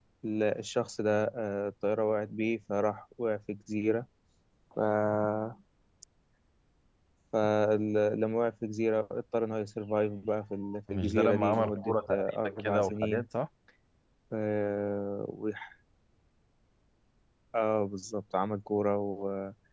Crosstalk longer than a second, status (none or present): present